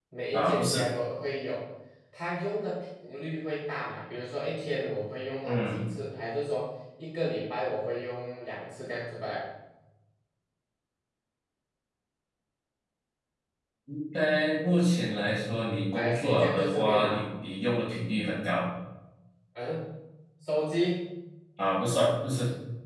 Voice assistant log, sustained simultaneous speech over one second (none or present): present